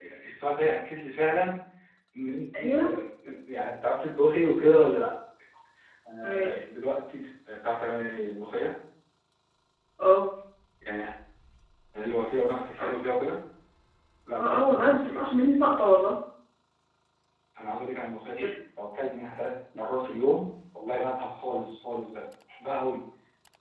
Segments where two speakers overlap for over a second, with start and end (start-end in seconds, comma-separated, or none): none